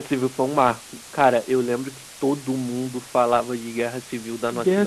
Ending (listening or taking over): taking over